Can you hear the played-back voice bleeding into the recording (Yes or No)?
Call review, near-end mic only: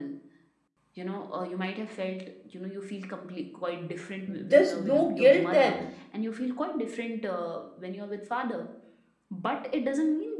Yes